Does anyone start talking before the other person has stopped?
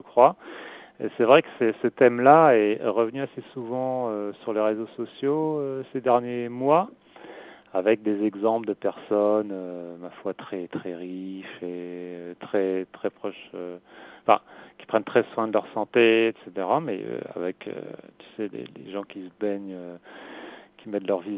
No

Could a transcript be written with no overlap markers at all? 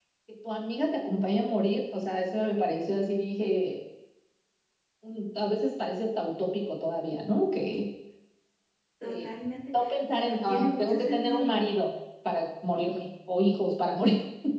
No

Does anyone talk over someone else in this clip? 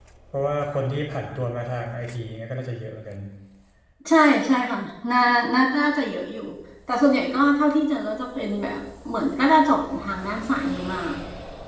No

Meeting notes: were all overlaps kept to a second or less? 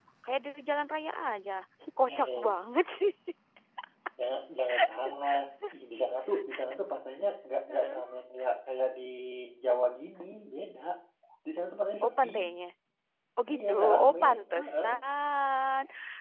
No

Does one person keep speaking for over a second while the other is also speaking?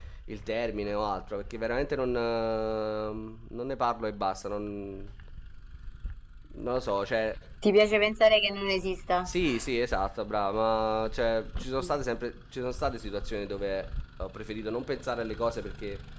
No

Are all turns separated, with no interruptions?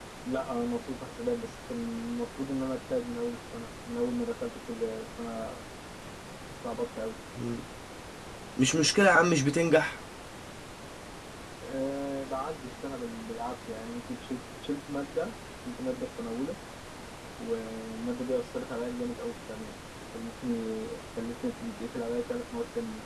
Yes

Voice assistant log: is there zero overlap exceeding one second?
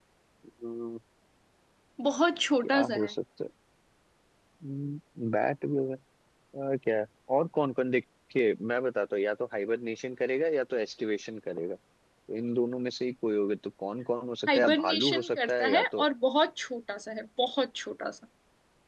No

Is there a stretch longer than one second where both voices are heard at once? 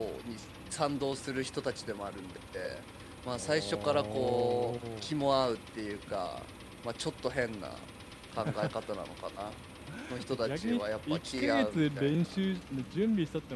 Yes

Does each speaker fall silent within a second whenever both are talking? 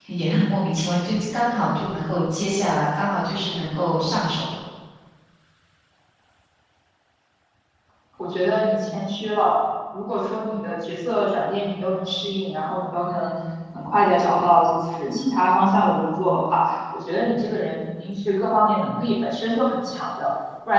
Yes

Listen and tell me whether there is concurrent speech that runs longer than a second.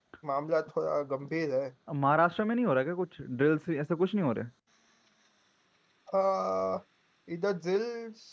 No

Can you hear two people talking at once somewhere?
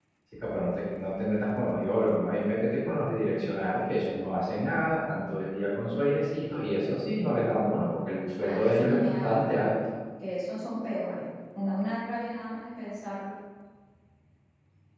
Yes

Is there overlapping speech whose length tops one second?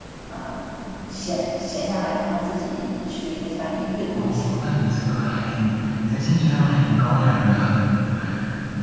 No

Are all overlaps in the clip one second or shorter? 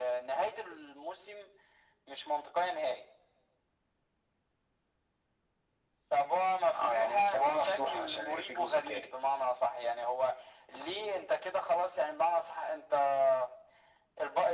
No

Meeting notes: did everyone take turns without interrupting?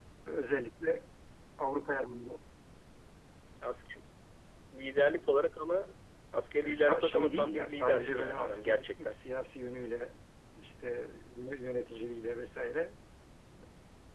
No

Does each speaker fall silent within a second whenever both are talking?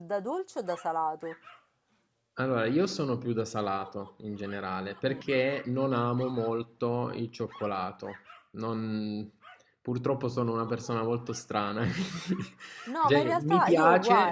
No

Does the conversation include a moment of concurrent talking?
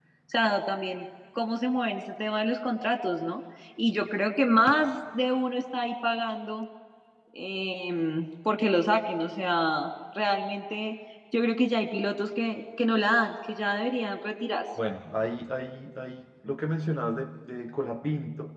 No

